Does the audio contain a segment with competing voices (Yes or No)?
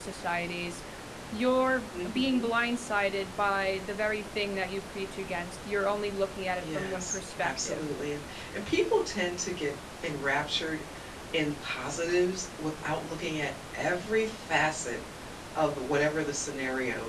Yes